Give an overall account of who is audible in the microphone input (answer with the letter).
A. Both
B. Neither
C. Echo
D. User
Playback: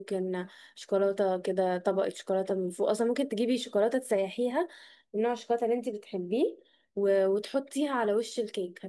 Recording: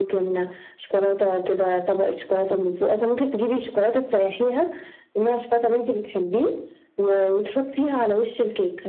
C